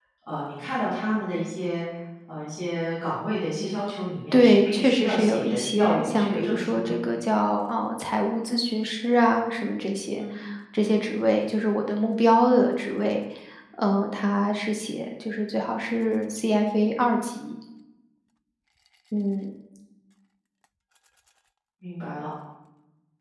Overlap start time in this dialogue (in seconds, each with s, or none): 4.3 s